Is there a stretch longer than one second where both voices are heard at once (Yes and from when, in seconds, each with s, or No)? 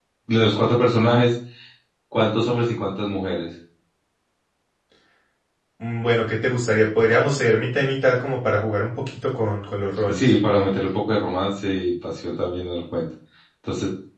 No